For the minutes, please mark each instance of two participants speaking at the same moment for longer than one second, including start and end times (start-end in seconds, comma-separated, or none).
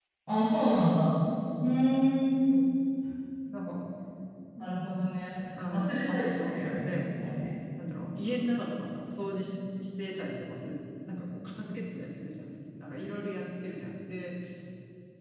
5.7-7.0